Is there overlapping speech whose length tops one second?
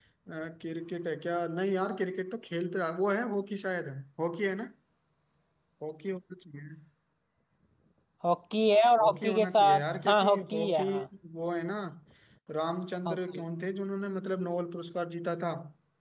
Yes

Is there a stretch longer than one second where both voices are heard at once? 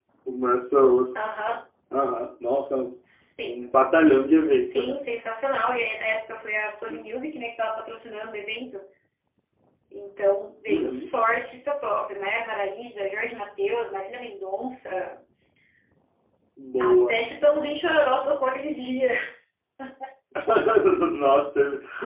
No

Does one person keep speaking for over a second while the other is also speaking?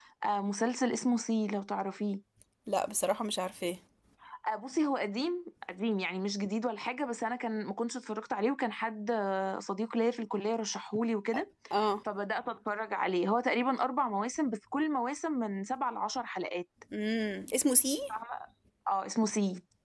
No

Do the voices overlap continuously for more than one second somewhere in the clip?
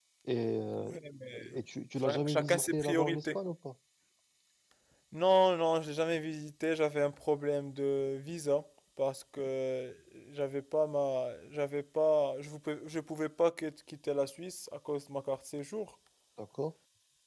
Yes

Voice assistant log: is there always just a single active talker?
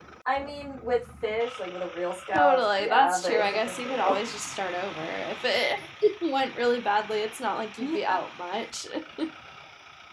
No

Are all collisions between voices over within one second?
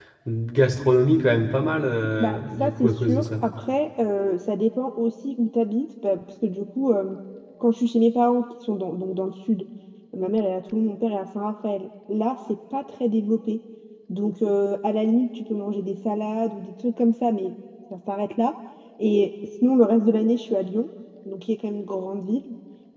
No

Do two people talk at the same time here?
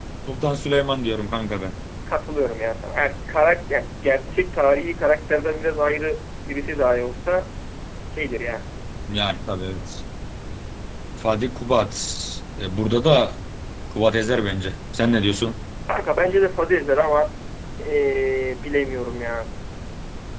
No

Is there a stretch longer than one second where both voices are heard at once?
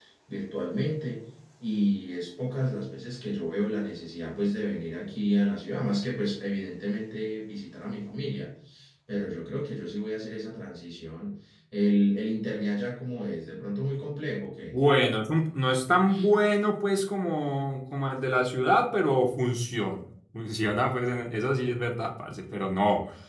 No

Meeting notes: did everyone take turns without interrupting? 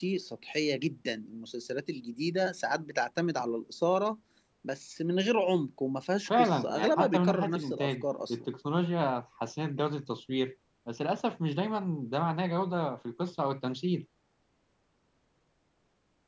No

